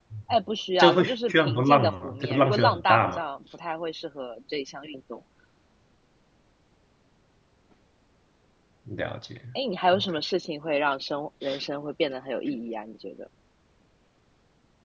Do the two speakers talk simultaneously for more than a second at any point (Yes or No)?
Yes